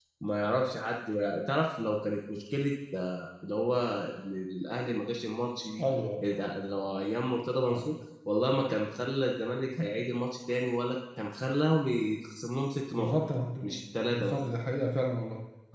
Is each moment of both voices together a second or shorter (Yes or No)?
Yes